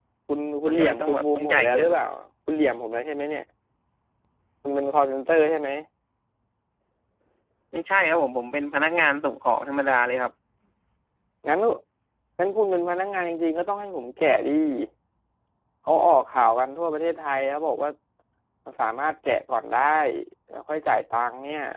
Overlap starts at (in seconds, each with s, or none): 0.7 s